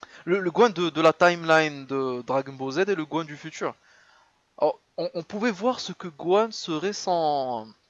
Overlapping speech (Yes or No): No